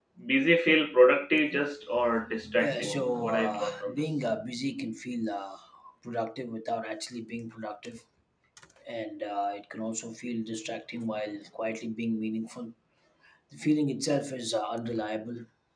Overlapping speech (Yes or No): Yes